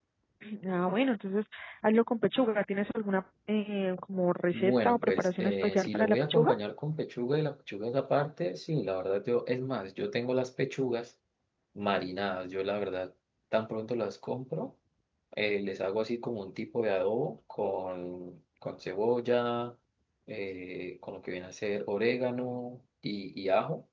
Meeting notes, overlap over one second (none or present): present